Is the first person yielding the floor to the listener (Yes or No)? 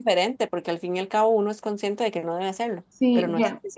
Yes